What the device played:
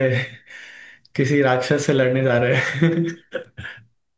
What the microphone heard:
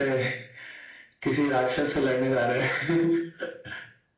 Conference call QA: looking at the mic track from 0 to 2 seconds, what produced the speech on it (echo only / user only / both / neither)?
echo only